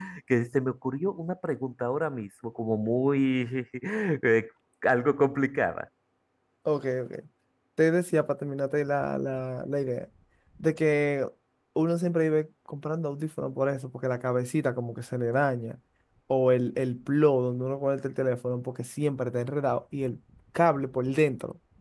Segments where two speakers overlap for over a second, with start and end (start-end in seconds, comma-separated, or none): none